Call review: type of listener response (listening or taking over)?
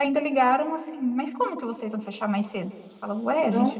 listening